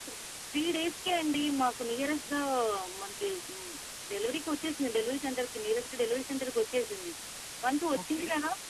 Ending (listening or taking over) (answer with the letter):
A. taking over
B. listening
B